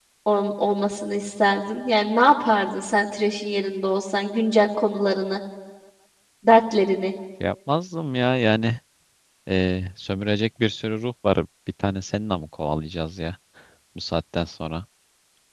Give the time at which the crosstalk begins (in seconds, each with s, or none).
none